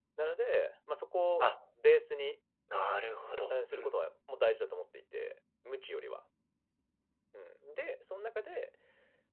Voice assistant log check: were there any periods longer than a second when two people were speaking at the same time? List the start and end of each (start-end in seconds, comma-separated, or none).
none